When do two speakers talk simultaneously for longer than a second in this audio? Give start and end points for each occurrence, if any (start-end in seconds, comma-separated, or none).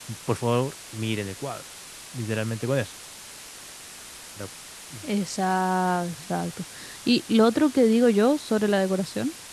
none